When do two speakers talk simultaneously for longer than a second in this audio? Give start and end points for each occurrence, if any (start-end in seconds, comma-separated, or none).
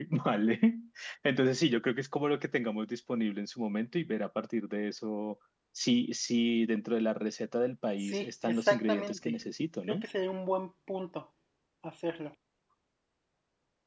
8.0-9.3